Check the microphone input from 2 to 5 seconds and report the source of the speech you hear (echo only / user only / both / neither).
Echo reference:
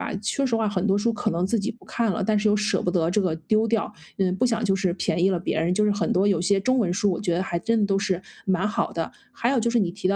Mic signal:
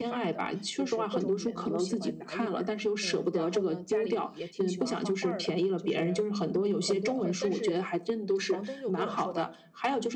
both